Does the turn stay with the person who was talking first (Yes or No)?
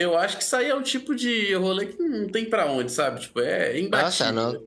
No